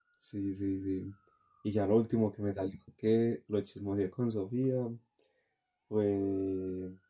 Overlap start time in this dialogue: none

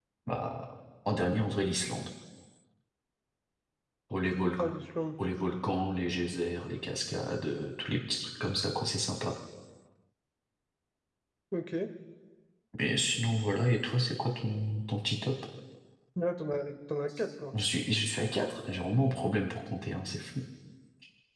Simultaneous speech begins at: none

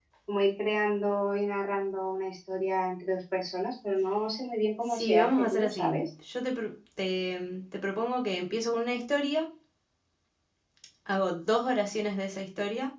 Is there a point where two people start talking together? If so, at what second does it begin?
4.9 s

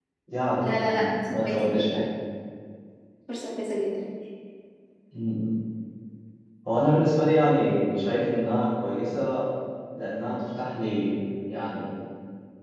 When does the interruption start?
0.6 s

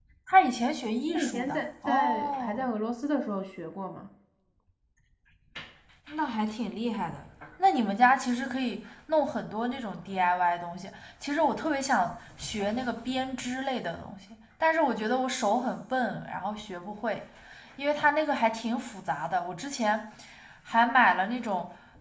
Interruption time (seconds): 1.1 s

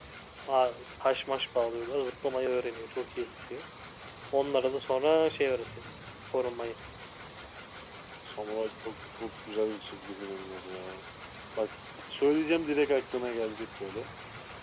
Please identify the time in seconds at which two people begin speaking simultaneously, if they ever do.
none

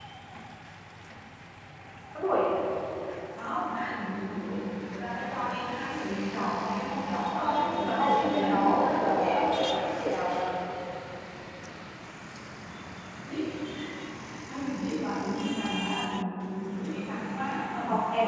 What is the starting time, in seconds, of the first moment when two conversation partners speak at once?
7.3 s

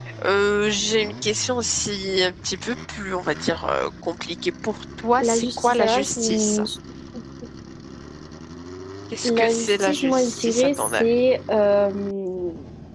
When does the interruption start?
5.2 s

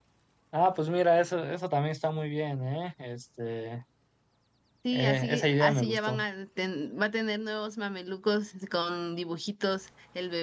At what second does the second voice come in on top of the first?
4.9 s

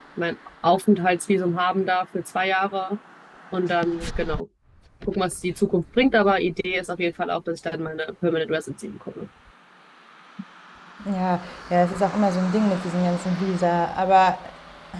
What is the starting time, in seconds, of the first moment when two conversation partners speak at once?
none

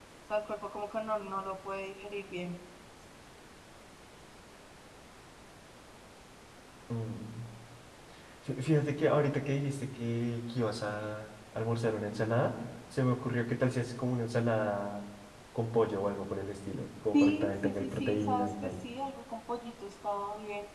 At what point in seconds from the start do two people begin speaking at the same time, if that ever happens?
17.1 s

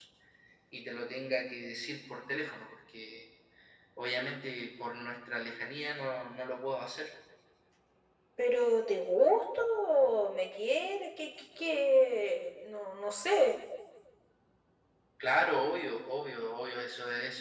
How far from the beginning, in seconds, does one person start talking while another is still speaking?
none

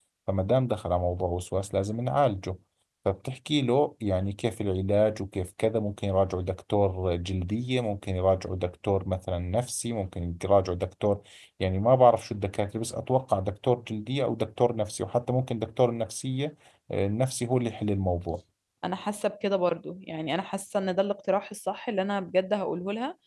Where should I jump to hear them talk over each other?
none

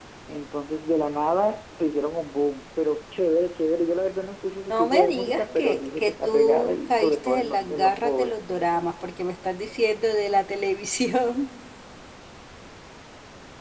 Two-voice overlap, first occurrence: 4.7 s

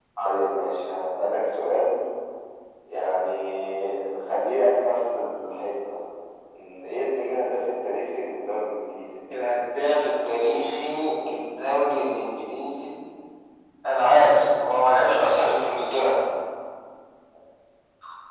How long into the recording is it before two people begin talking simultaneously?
none

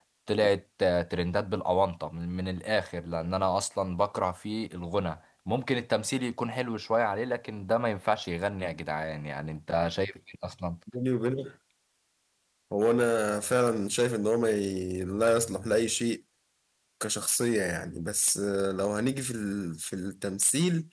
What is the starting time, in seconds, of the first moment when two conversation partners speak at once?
none

